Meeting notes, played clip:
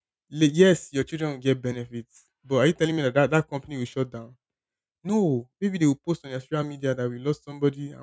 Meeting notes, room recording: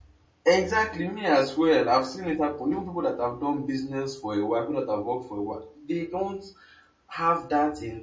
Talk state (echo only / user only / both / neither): user only